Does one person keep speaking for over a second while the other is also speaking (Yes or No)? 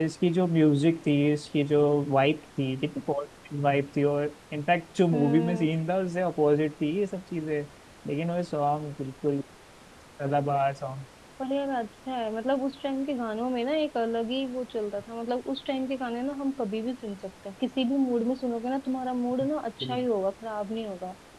No